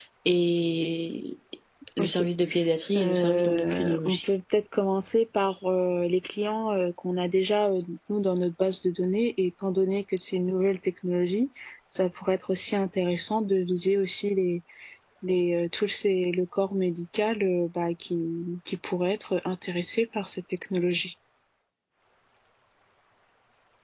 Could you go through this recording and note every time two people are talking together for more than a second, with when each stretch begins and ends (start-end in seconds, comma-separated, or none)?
3.0-4.2